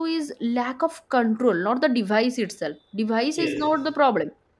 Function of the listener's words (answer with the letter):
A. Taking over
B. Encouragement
B